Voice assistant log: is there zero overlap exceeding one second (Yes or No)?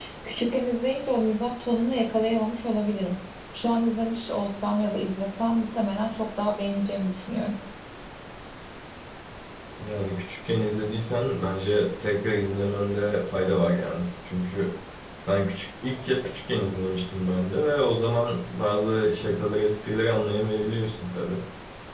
Yes